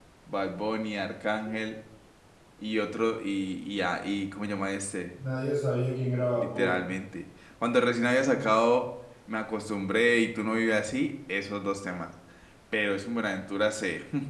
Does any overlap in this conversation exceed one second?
No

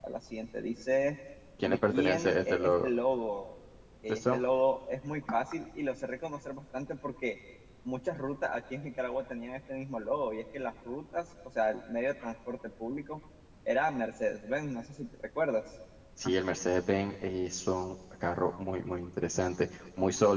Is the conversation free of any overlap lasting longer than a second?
No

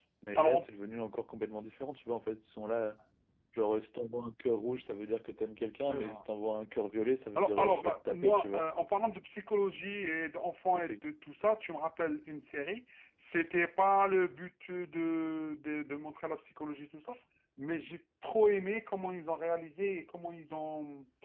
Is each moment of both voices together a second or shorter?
No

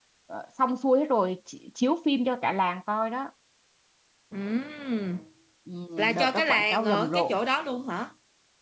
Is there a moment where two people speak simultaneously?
Yes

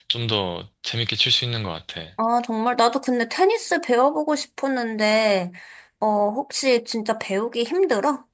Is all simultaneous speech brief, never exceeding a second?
Yes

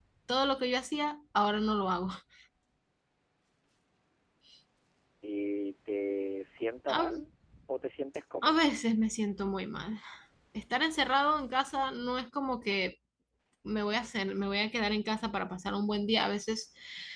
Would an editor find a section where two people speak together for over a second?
No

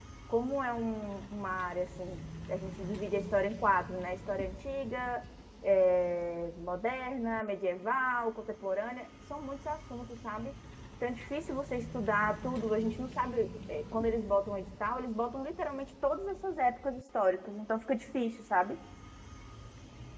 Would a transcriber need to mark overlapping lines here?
No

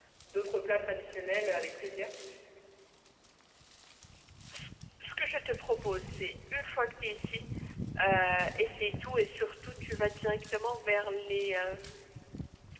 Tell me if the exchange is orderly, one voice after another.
Yes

